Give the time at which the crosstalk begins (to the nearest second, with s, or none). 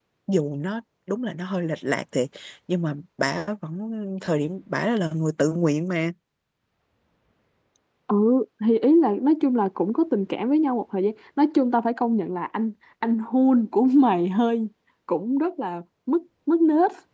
none